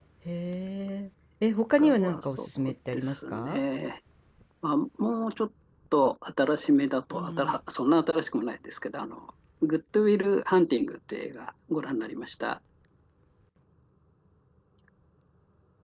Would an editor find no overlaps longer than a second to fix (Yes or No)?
No